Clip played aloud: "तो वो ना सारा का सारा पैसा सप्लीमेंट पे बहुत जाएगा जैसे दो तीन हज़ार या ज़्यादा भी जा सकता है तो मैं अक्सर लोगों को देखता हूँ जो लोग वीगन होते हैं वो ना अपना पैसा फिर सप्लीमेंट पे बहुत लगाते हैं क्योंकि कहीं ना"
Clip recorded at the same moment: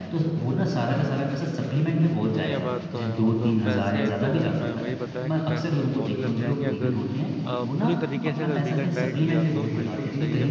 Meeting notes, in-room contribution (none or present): present